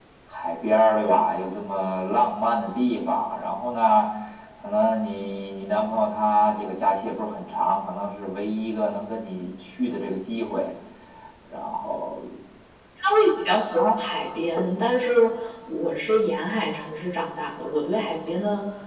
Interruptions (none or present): none